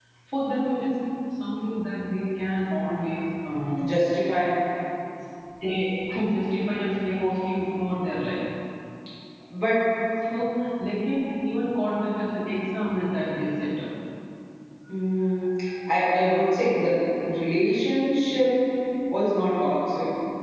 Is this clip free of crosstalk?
Yes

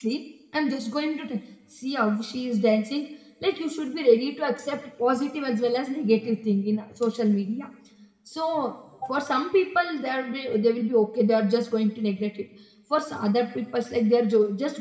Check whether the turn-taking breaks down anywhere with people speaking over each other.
No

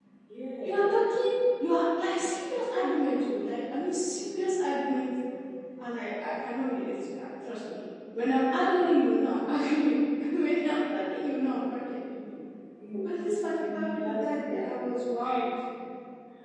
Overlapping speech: Yes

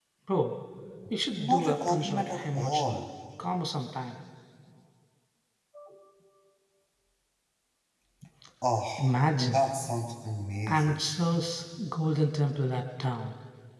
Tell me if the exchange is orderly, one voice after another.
No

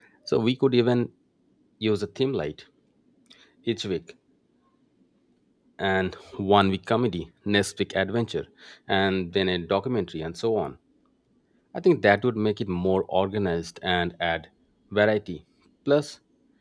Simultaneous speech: No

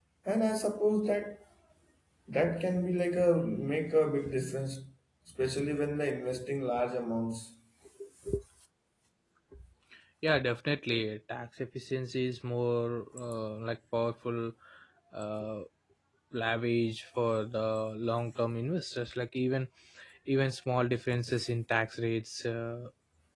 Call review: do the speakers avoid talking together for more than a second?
Yes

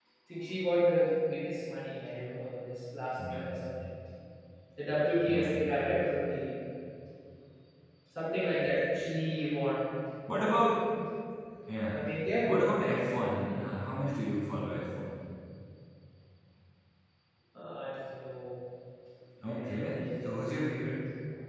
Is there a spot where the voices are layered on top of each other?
Yes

